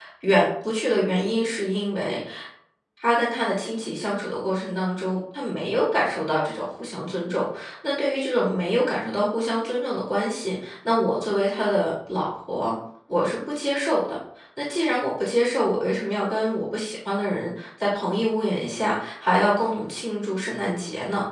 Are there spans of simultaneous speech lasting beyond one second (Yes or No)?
No